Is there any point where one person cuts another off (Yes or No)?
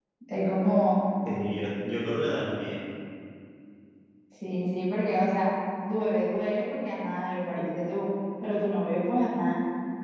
No